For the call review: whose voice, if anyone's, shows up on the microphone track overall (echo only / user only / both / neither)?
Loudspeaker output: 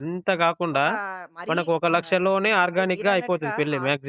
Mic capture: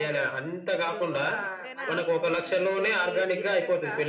both